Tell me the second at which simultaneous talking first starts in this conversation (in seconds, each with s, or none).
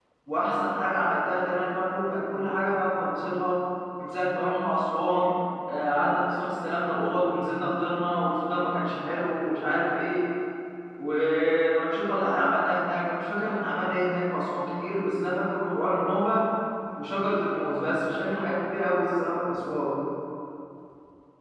none